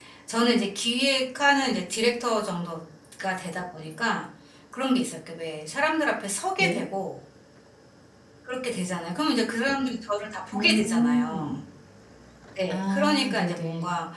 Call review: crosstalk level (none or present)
present